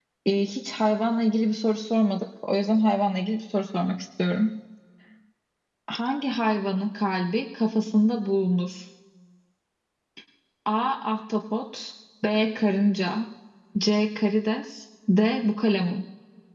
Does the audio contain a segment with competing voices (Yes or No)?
No